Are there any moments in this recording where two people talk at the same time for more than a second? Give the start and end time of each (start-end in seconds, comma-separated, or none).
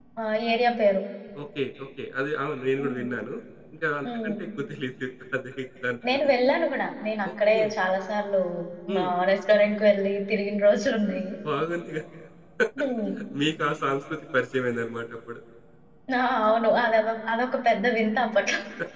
none